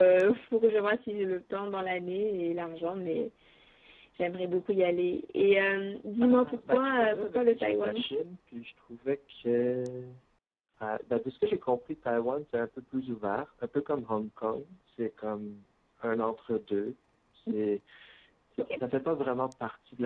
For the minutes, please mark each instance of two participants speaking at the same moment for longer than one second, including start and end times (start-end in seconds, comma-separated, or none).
6.2-8.0